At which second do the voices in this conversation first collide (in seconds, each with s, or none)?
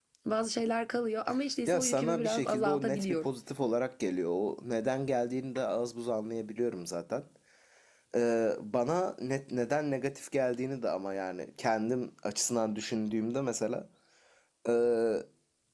1.7 s